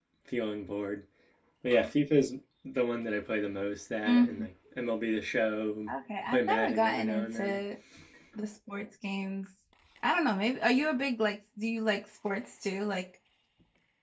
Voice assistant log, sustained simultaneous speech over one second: present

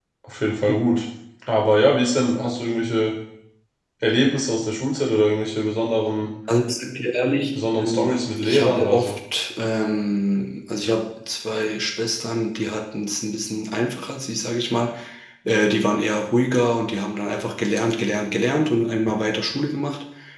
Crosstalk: present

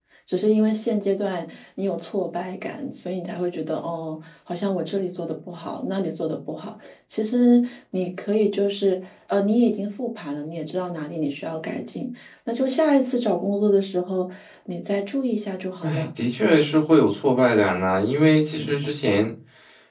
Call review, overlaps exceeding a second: none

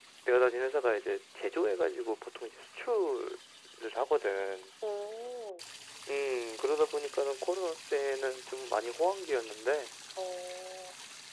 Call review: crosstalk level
none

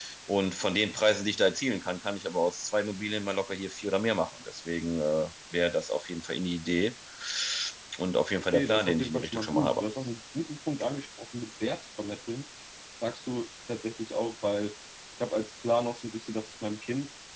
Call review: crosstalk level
present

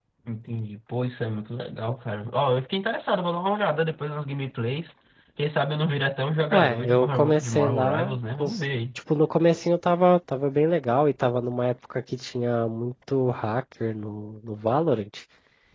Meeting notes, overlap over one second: present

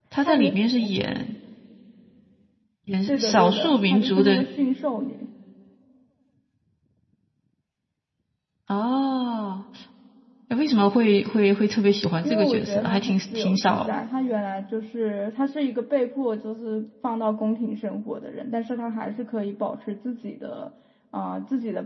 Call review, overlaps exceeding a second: present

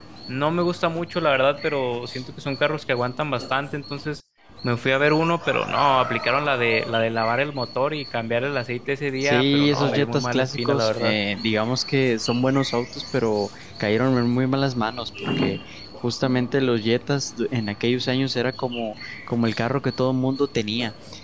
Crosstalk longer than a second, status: present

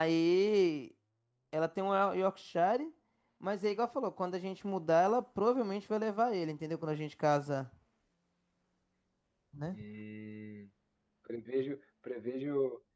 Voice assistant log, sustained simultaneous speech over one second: none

